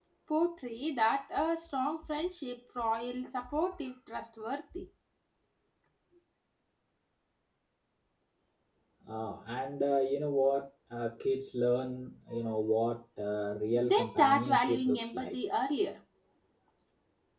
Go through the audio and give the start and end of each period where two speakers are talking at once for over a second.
13.8-15.3

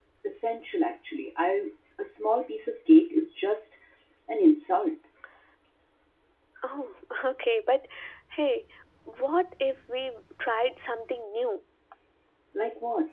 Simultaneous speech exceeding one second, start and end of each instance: none

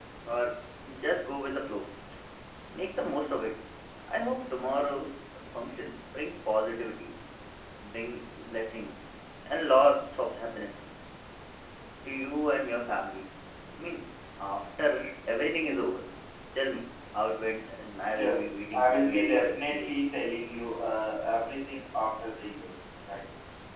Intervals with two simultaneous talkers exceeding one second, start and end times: 18.1-20.0

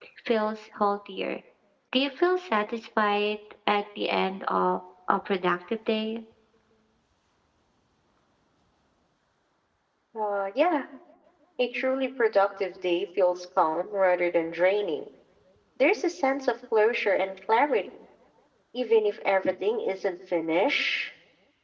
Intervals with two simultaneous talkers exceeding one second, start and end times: none

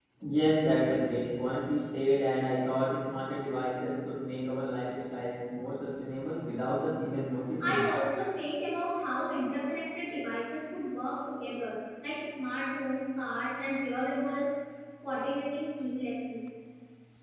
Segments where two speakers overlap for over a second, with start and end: none

